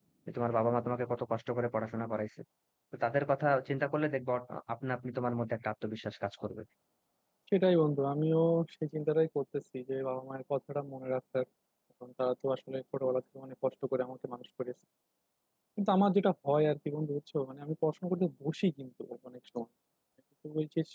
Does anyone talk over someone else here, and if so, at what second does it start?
none

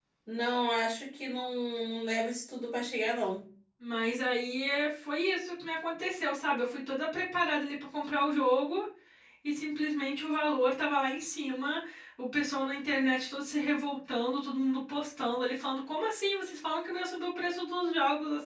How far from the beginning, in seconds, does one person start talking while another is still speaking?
none

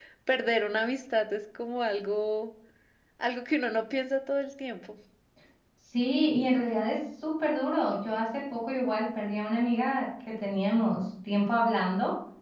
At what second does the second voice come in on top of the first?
none

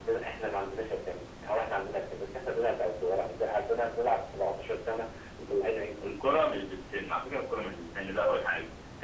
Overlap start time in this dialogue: none

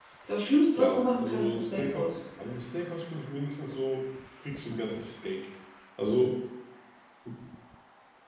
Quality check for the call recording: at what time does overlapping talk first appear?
0.8 s

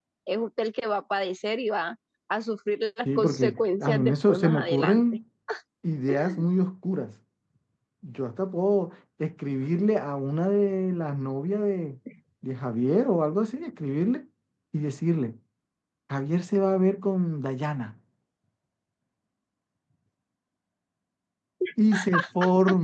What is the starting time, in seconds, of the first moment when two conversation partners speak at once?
3.0 s

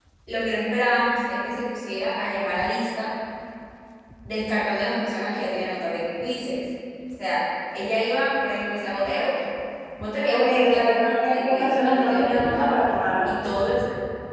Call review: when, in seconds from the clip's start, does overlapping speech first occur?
10.3 s

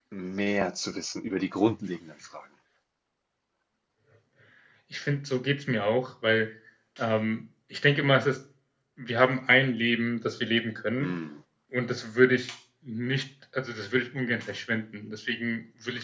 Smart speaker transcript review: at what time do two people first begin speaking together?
none

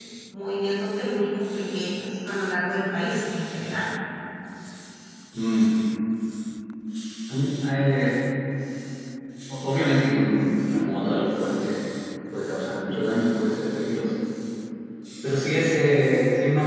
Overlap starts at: none

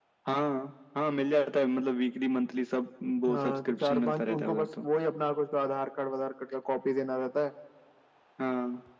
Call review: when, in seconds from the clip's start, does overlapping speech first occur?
3.3 s

